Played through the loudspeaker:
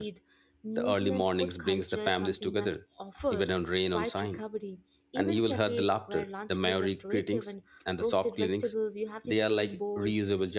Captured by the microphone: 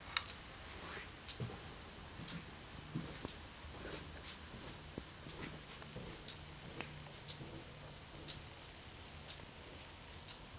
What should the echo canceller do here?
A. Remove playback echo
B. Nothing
B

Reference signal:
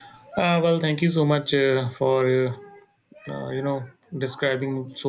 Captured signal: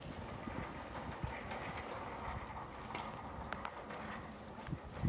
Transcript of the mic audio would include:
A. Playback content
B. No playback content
B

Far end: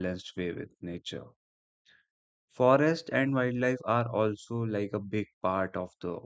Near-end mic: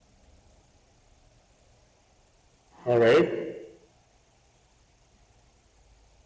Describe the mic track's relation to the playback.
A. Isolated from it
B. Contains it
A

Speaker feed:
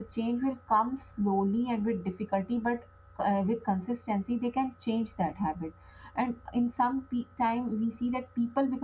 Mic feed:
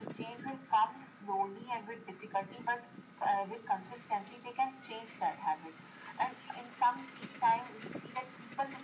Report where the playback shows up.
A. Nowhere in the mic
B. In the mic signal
B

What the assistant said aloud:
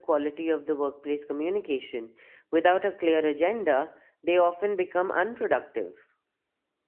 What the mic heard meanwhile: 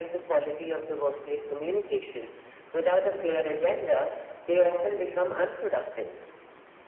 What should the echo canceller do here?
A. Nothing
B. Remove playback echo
B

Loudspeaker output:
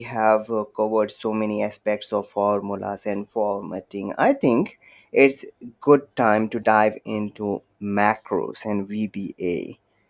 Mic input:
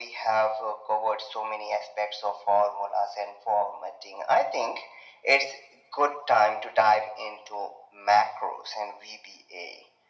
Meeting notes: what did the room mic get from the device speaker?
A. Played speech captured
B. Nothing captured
A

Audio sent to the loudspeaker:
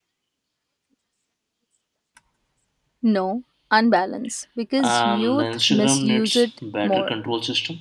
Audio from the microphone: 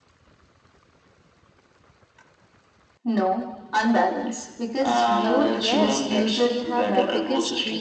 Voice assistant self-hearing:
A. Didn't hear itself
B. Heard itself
B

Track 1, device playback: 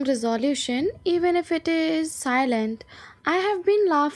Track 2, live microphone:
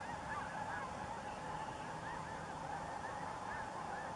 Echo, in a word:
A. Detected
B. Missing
B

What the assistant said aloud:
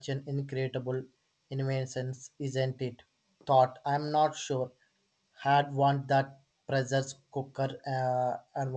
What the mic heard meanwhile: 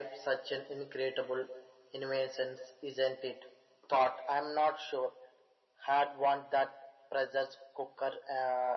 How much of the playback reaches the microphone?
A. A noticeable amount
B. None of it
A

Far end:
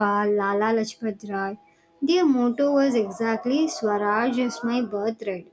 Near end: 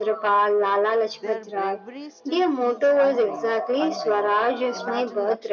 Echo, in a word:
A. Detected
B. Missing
A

